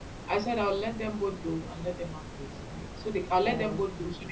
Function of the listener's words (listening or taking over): listening